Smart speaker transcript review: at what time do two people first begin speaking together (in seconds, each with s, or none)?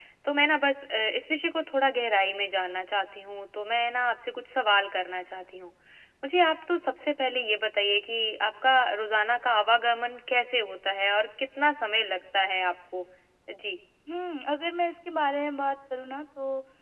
none